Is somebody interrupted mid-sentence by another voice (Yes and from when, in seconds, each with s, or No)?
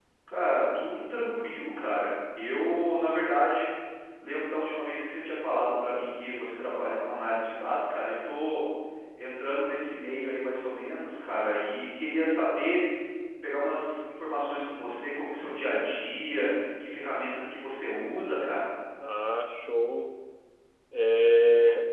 No